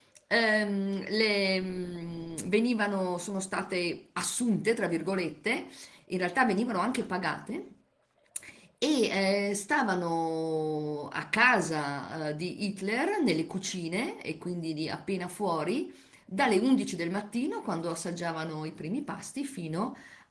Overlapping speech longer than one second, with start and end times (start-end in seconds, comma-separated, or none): none